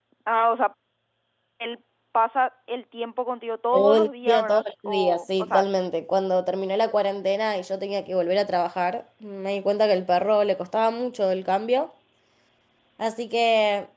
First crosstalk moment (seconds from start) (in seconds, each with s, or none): 3.7 s